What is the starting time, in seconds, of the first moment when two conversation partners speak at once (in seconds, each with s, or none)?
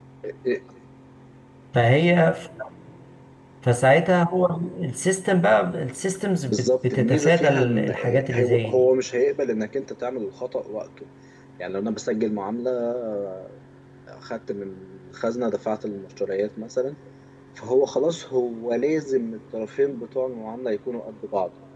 6.5 s